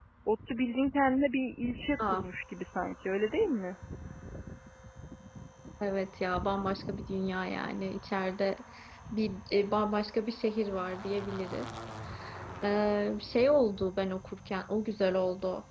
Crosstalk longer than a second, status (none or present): none